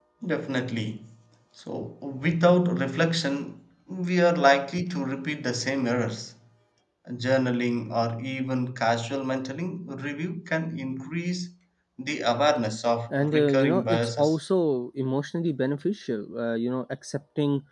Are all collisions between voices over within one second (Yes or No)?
No